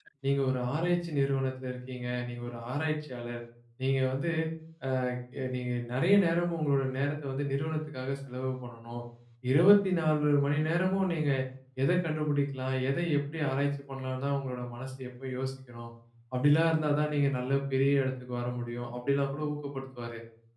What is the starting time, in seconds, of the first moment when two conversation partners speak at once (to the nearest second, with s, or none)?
none